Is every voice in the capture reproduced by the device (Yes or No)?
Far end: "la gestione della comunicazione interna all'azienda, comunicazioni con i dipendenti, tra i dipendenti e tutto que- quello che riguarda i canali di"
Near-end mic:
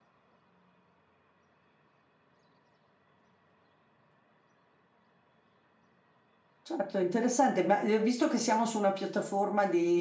No